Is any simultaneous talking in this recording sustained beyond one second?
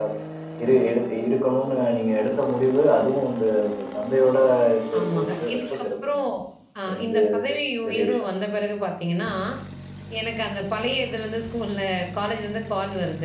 Yes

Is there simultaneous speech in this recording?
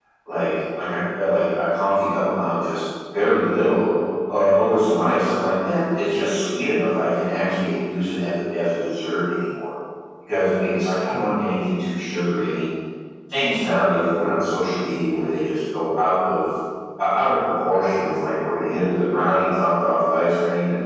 No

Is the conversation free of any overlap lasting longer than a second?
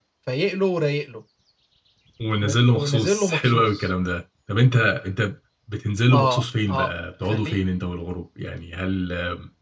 No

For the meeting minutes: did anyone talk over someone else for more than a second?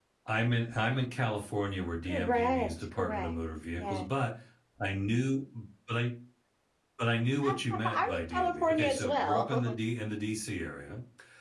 Yes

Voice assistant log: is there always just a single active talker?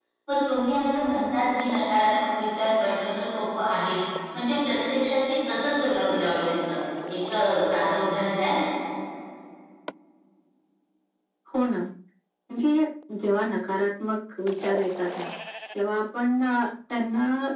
Yes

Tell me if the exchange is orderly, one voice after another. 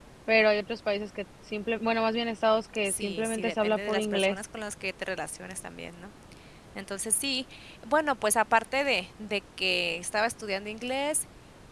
No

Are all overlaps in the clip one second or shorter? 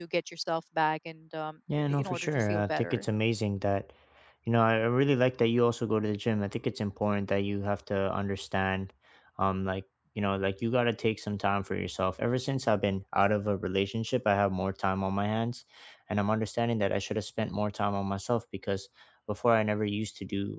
No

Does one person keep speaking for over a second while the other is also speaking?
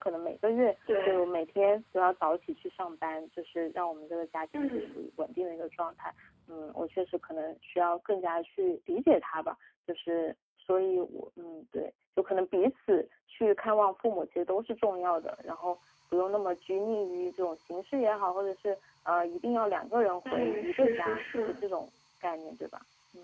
Yes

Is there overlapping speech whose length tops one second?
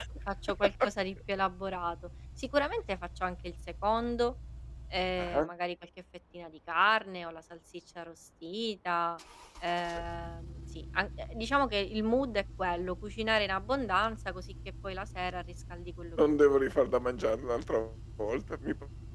No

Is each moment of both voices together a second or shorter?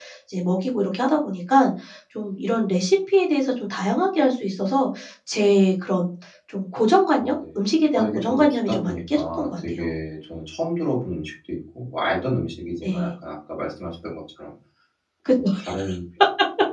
No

